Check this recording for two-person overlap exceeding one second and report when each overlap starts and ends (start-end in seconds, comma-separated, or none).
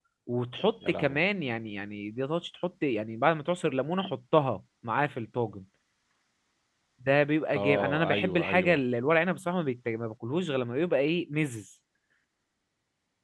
7.5-8.8